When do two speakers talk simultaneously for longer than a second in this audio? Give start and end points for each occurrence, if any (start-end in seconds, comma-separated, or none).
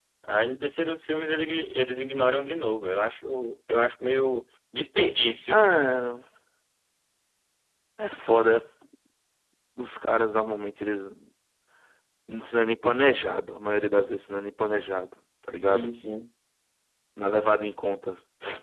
none